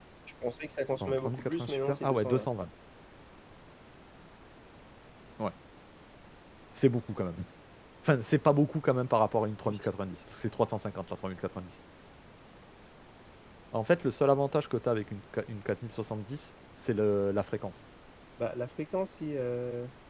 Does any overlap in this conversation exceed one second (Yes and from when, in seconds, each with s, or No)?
Yes, from 1.0 s